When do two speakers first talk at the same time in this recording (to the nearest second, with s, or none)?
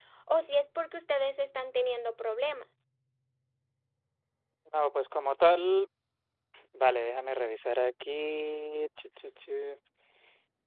none